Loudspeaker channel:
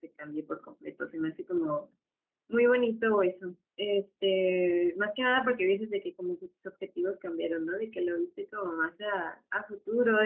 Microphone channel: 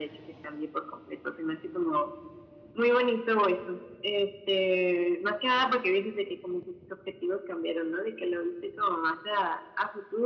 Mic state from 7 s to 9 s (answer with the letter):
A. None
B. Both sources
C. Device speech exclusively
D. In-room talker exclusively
C